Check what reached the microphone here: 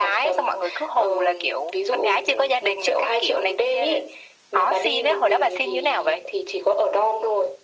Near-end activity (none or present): none